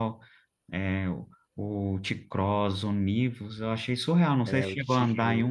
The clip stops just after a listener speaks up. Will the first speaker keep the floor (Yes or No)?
No